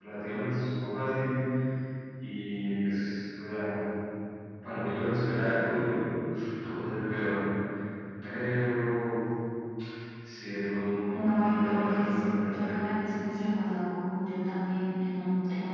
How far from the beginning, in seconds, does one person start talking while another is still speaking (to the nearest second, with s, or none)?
11 s